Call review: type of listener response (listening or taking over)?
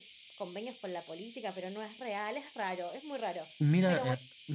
taking over